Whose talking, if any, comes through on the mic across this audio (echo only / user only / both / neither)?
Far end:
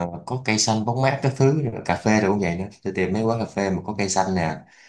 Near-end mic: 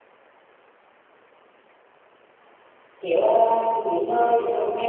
user only